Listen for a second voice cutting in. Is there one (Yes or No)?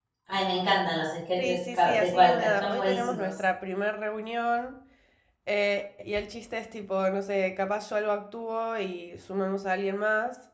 Yes